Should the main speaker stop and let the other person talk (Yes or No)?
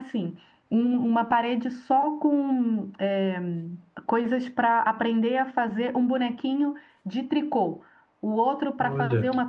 No